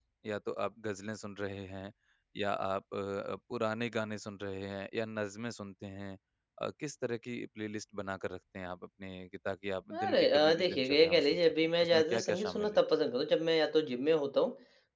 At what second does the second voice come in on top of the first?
9.9 s

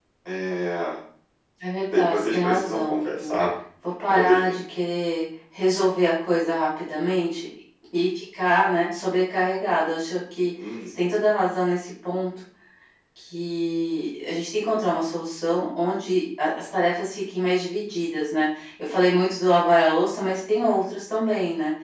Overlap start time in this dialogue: 1.9 s

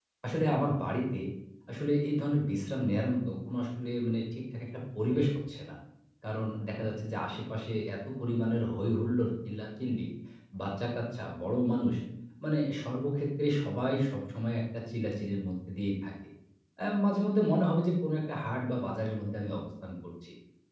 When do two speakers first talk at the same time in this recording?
none

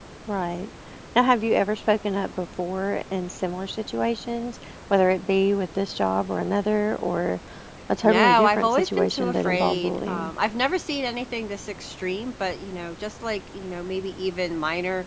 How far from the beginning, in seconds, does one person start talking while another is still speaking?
8.1 s

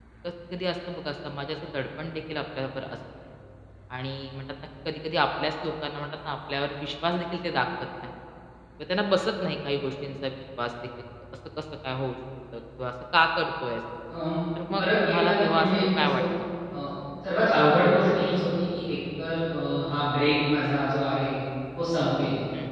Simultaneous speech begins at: 14.8 s

